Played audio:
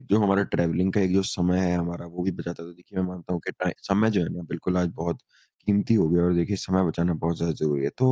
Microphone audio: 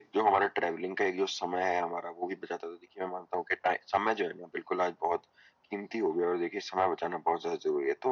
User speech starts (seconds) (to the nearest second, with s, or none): none